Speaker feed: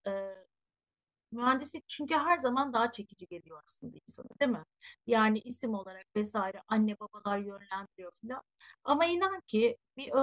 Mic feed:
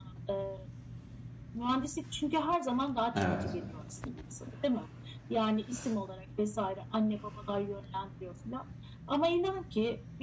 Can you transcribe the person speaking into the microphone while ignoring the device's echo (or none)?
Evet.